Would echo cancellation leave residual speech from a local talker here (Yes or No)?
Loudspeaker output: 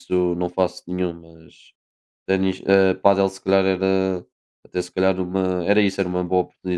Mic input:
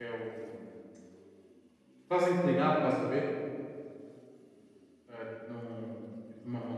Yes